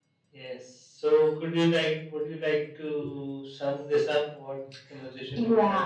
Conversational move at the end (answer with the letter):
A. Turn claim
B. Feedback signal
A